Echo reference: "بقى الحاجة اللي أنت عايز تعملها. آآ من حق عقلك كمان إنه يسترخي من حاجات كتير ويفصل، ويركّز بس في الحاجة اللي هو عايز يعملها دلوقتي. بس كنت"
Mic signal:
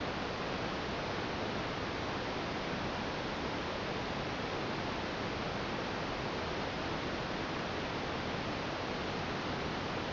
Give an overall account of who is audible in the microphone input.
neither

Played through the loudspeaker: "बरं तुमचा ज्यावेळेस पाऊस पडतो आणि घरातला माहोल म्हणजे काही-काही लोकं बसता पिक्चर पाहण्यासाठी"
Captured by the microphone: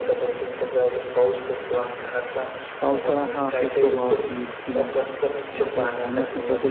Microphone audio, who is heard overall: both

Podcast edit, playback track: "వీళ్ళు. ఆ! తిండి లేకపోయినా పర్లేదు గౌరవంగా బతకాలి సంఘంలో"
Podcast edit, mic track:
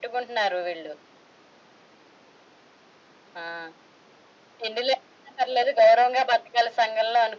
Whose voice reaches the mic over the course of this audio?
echo only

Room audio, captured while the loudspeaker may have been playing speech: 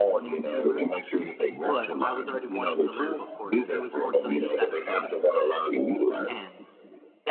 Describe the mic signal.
both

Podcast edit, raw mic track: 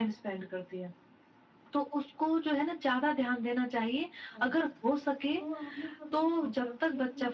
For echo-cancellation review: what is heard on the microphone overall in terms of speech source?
both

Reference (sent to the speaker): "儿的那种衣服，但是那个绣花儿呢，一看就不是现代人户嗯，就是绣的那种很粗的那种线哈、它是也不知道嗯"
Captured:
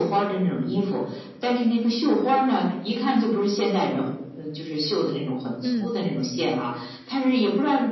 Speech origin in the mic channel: both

